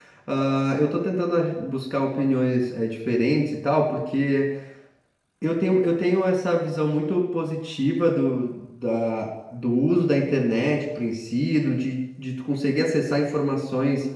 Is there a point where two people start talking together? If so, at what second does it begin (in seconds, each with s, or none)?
none